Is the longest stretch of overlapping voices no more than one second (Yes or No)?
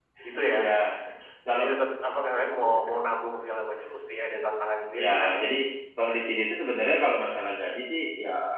Yes